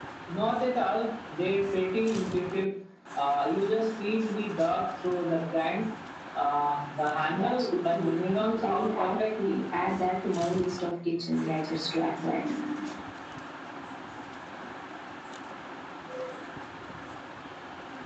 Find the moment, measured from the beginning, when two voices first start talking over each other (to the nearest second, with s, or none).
7 s